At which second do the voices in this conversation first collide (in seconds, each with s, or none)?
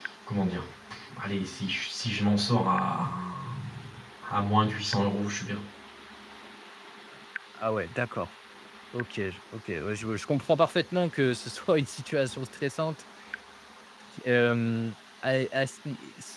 none